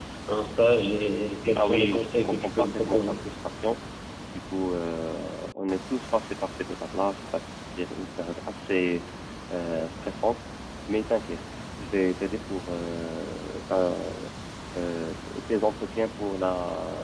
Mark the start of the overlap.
2 s

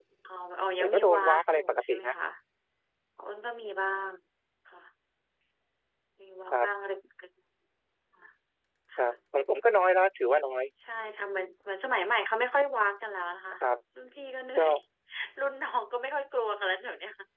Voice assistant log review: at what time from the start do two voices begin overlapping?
1 s

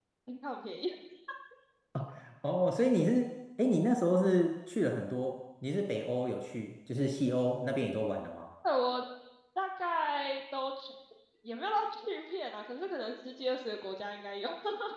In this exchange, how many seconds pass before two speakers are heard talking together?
none

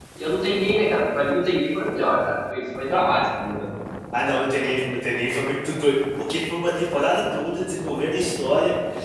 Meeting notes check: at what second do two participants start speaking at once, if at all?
none

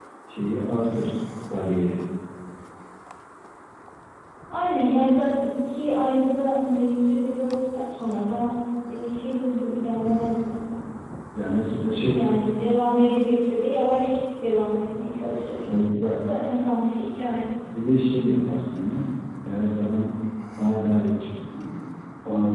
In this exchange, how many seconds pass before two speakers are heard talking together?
none

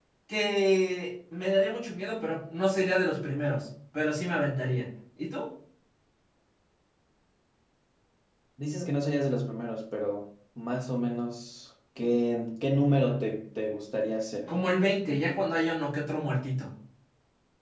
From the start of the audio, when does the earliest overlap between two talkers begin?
none

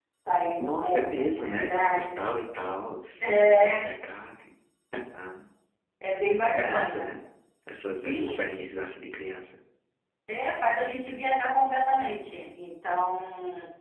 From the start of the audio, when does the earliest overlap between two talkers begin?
1 s

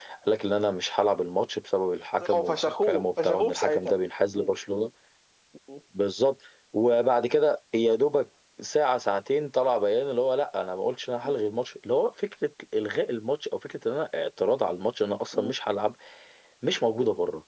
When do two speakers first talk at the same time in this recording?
2 s

